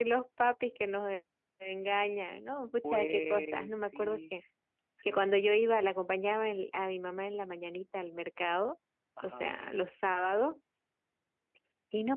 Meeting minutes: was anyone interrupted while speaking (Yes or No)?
Yes